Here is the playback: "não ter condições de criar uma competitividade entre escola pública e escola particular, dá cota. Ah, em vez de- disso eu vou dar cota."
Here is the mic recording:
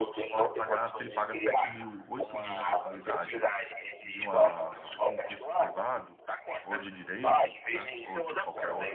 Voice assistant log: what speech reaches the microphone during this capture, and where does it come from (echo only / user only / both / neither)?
both